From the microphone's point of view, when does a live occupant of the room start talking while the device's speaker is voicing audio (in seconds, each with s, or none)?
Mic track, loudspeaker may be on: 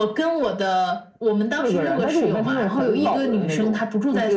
none